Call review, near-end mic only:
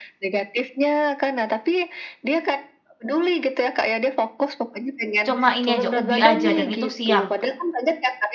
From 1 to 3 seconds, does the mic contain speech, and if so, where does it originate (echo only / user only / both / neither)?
echo only